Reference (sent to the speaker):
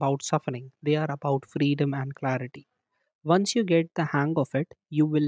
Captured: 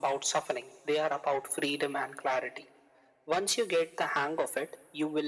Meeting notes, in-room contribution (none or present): none